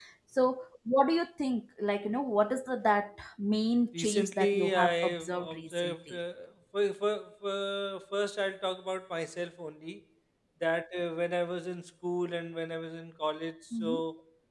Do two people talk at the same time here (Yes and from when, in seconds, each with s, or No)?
Yes, from 3.9 s